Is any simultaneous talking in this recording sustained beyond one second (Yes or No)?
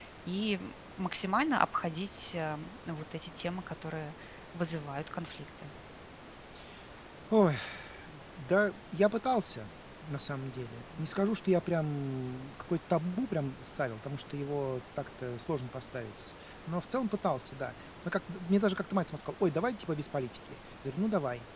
No